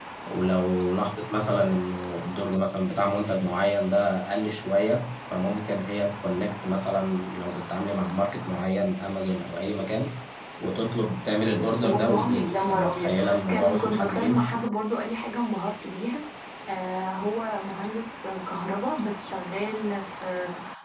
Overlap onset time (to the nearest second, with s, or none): 12 s